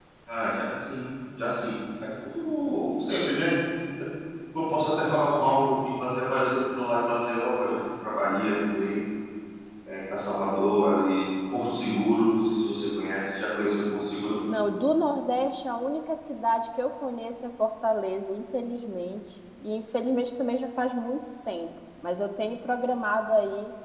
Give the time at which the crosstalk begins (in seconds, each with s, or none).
none